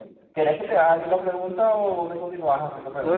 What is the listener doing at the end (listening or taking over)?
taking over